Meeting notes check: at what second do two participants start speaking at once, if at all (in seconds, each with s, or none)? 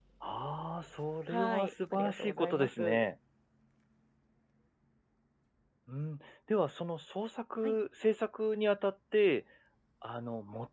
1.3 s